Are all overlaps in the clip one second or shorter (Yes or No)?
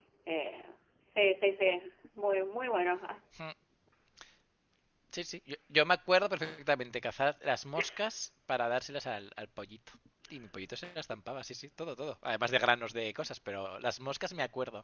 Yes